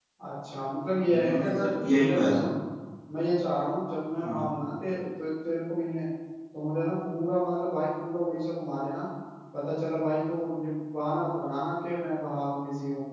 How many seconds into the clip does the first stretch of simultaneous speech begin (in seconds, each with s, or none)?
1.1 s